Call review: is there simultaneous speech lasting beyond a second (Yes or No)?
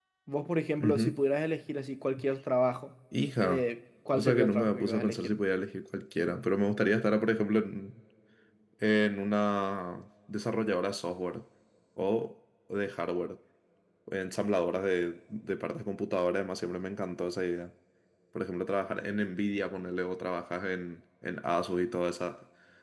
Yes